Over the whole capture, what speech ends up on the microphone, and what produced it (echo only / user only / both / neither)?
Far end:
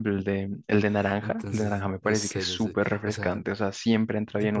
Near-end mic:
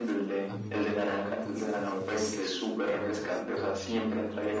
both